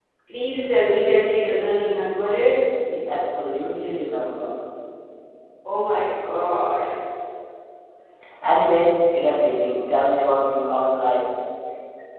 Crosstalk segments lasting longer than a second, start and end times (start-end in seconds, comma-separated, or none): none